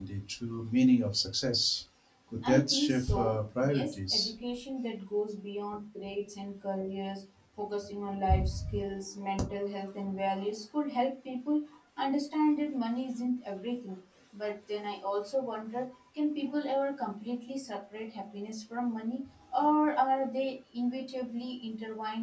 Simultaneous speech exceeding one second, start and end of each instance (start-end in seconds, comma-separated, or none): 2.5-4.3